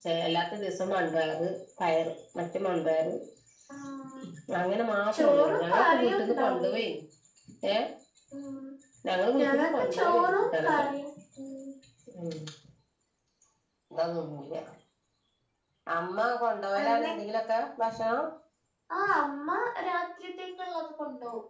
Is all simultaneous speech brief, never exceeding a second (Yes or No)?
No